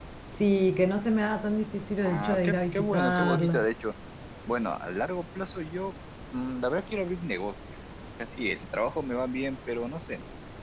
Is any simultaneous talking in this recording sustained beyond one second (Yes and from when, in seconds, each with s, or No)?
Yes, from 2.0 s